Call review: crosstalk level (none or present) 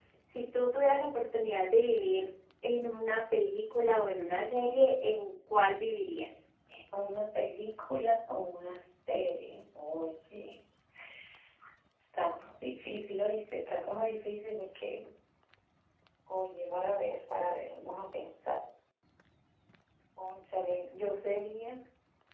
none